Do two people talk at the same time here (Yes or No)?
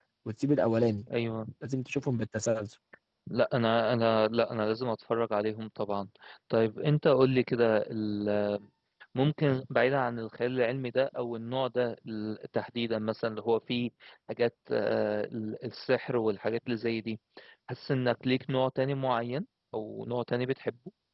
No